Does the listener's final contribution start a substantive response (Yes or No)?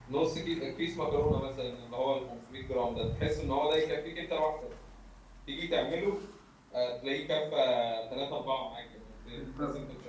No